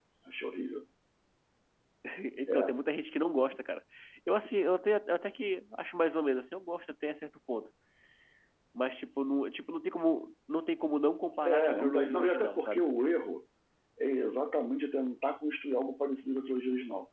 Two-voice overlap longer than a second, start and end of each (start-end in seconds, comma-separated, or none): 11.4-12.8